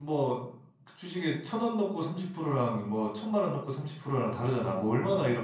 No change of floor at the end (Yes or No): No